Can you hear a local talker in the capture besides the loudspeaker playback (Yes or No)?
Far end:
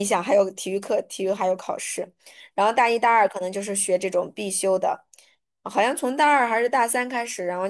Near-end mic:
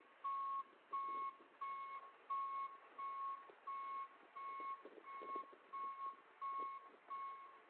No